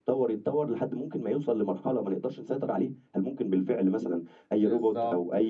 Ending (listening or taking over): taking over